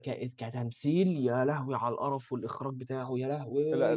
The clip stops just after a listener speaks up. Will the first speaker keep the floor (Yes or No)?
No